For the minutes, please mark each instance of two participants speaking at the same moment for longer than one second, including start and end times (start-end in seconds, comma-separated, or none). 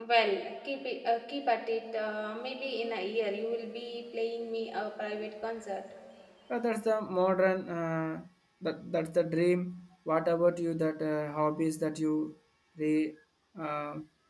none